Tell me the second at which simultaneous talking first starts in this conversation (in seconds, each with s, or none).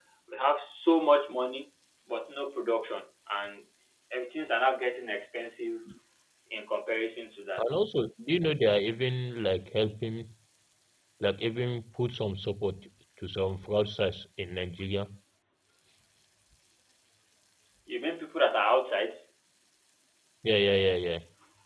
none